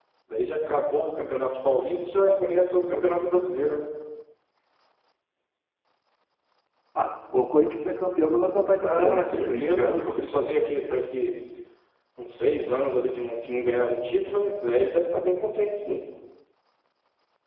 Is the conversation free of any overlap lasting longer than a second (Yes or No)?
No